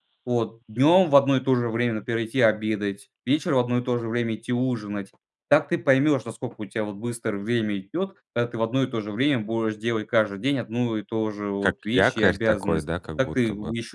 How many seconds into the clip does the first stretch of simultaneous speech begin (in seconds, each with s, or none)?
11.6 s